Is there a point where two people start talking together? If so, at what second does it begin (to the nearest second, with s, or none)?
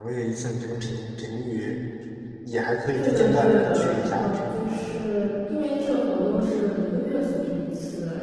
3 s